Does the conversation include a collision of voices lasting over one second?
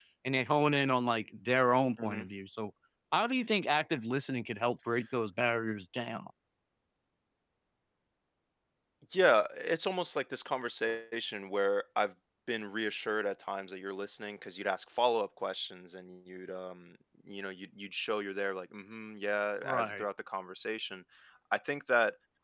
No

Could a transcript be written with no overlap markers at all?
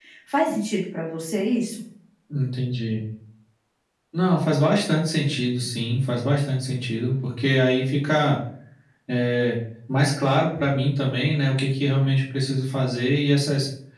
Yes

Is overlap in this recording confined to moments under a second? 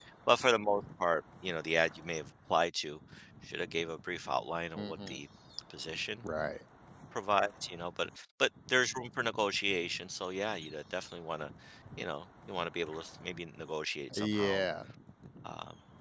Yes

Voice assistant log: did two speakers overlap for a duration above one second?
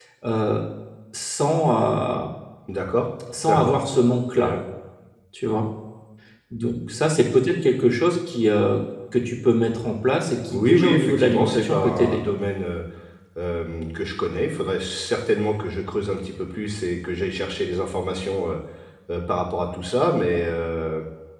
Yes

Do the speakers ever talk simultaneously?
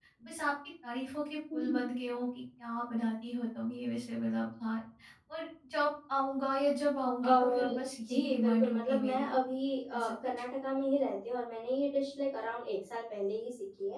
Yes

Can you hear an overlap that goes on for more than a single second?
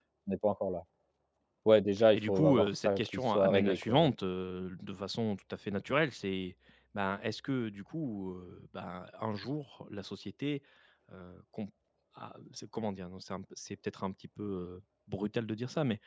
Yes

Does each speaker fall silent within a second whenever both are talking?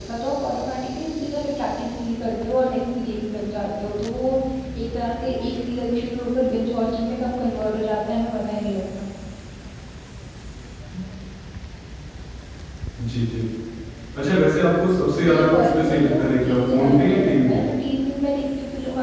No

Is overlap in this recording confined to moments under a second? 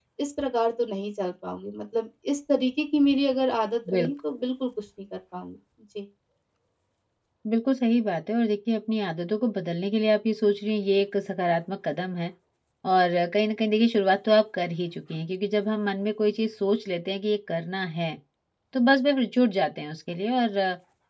Yes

